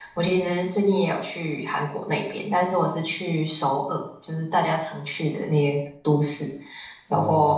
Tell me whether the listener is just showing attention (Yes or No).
Yes